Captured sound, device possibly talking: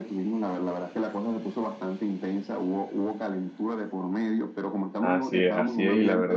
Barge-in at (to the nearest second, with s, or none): 5 s